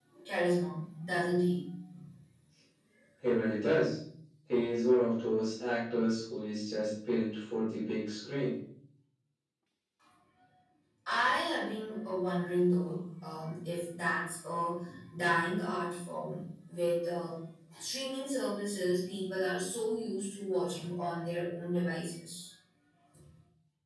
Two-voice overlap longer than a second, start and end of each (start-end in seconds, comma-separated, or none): none